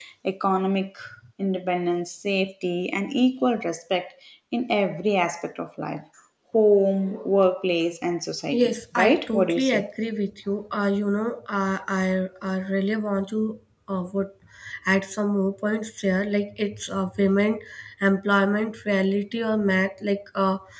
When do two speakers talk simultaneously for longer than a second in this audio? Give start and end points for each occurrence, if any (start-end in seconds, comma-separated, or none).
8.5-9.8